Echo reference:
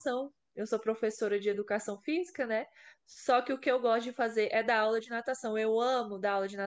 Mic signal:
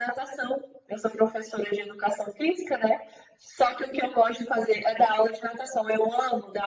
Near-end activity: none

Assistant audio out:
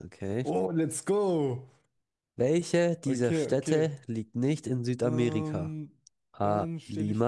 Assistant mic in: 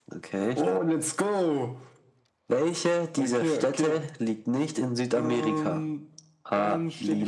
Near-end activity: none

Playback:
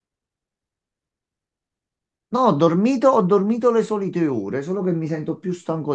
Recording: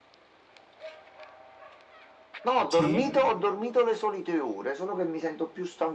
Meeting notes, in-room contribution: present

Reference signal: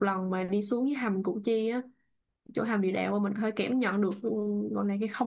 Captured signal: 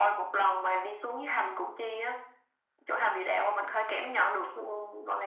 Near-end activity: none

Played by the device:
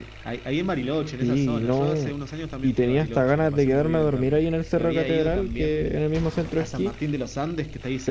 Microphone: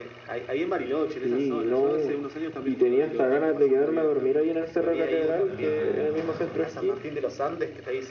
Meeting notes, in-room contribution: present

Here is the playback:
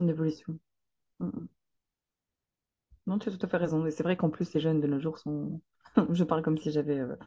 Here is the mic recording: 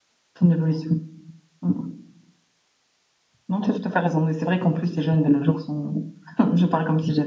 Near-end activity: none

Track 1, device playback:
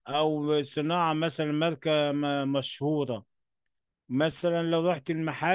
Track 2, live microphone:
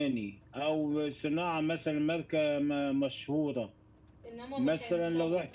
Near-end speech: present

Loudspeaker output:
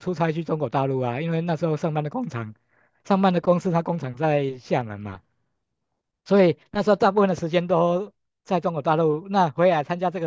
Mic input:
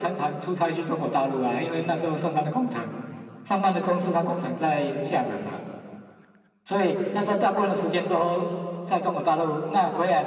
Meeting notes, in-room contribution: none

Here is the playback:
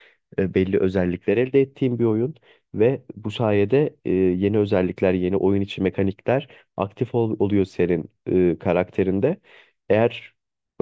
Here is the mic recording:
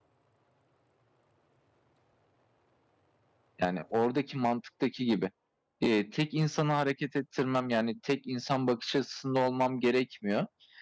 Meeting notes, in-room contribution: present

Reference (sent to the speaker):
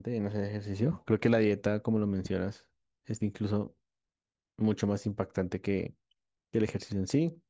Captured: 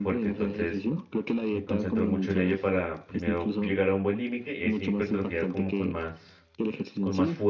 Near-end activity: present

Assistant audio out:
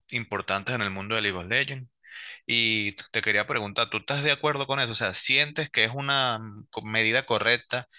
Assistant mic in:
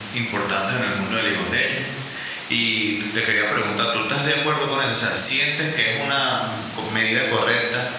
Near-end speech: none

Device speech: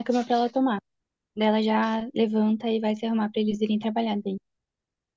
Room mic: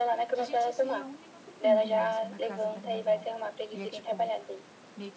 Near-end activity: present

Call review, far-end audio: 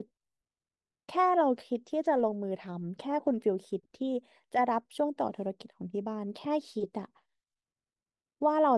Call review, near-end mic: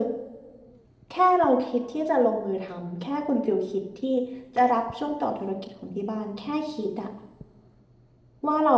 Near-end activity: none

